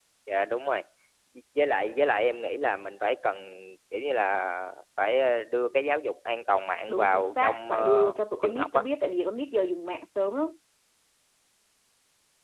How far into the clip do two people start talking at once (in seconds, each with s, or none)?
6.9 s